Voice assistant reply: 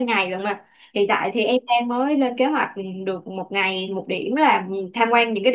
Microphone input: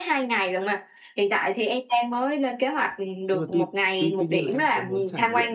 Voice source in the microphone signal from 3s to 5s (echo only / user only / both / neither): both